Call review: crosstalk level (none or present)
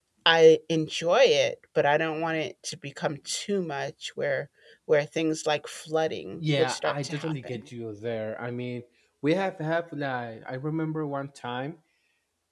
present